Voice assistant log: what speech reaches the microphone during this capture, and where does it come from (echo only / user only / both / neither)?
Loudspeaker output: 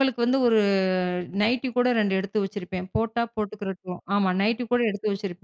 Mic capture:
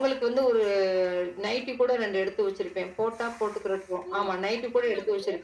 both